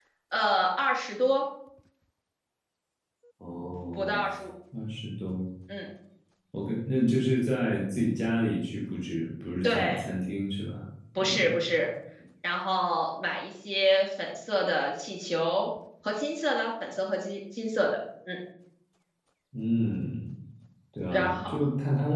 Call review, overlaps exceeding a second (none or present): none